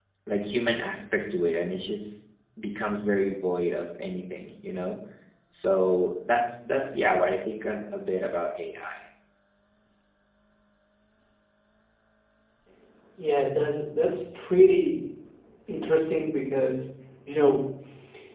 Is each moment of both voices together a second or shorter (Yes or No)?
Yes